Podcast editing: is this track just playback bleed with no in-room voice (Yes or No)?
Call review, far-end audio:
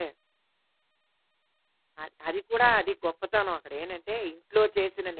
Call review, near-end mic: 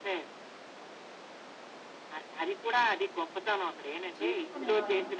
No